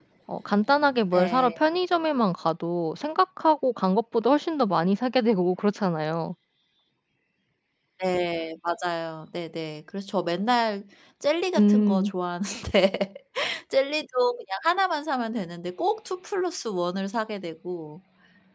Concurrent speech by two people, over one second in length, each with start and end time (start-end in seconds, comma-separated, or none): none